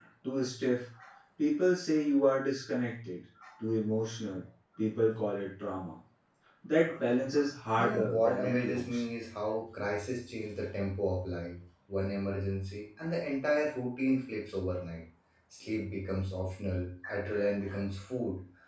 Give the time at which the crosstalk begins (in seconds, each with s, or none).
7.8 s